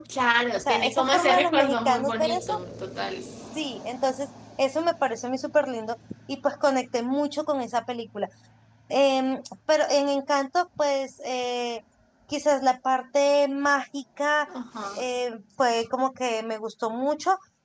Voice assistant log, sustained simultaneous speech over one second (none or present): present